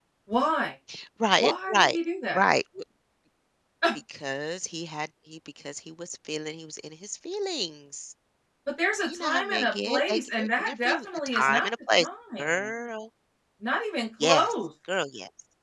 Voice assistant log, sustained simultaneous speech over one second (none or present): present